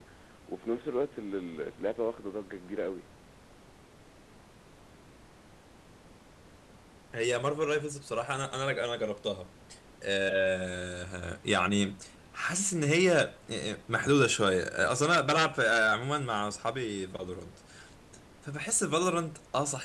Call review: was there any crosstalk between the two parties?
No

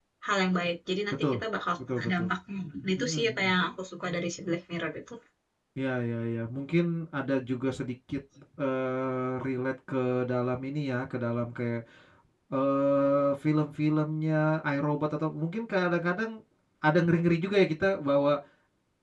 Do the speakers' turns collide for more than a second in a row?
No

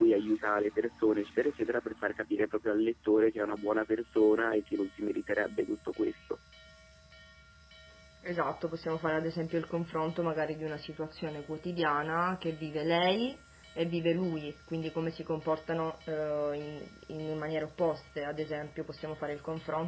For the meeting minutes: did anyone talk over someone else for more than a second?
No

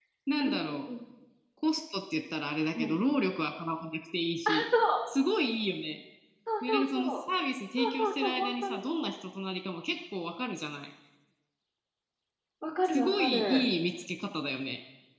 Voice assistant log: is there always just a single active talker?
No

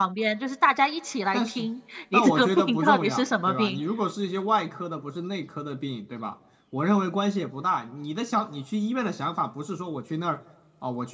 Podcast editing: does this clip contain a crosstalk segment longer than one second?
Yes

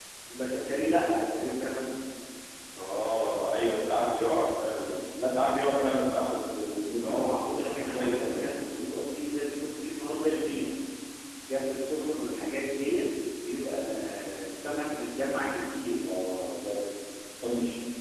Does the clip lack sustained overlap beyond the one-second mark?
No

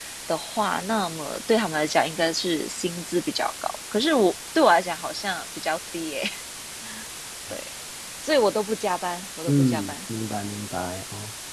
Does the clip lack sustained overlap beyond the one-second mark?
Yes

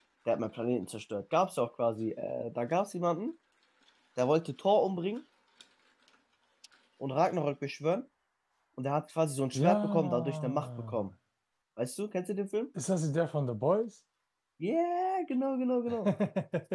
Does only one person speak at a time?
No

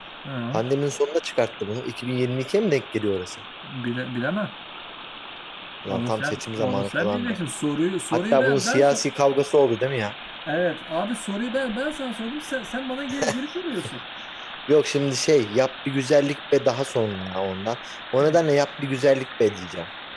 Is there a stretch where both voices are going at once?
Yes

